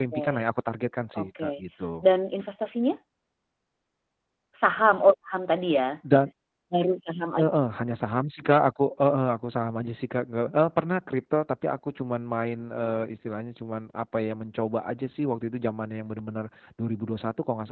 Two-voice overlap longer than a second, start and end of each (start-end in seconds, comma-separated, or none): none